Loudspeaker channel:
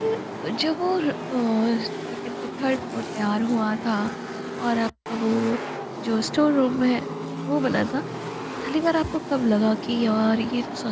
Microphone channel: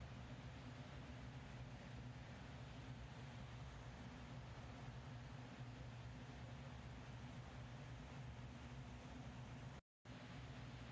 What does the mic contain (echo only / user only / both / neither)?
neither